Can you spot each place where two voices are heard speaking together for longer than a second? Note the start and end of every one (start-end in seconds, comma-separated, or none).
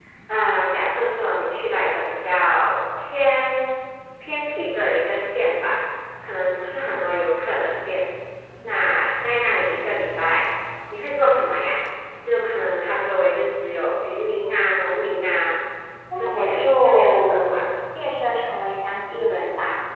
16.2-17.6